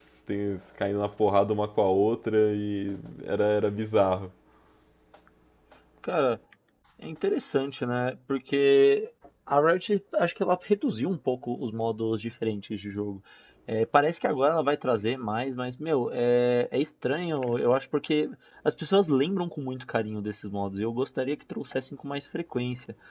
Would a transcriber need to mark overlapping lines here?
No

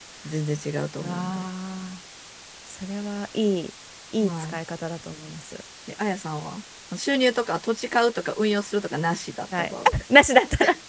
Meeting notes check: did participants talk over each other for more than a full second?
No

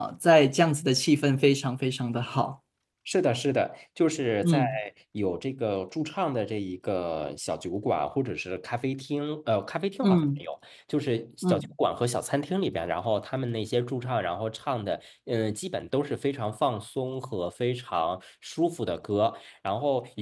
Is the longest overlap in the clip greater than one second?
No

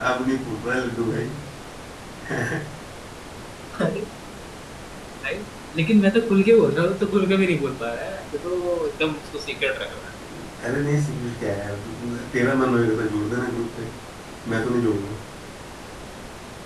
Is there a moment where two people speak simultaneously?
No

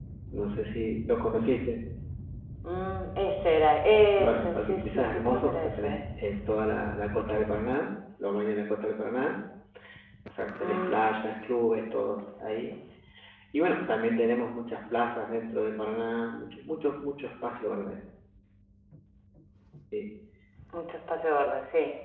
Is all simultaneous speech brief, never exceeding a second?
No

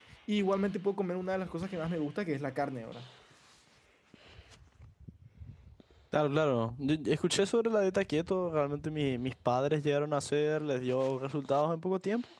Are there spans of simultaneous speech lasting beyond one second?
No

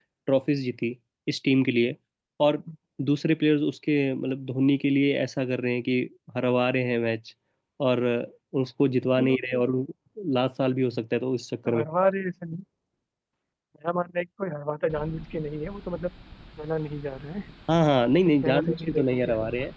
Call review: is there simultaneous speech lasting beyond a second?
Yes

